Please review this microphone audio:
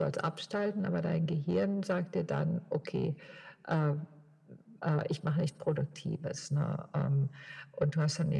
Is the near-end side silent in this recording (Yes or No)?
Yes